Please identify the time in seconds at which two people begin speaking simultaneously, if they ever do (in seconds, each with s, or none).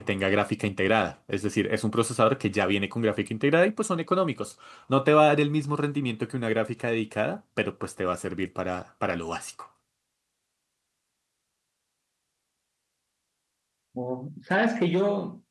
none